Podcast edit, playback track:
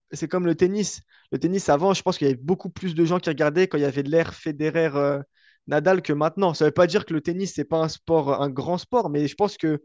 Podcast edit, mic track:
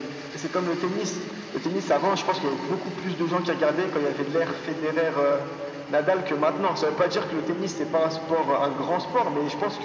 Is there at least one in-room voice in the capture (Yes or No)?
No